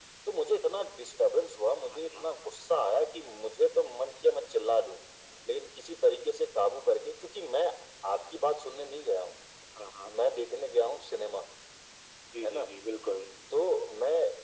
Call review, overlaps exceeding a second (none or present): none